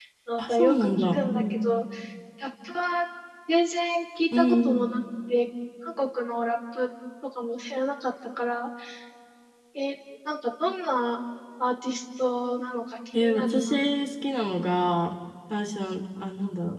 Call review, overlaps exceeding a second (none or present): present